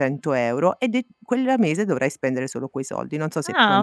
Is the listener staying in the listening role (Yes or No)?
No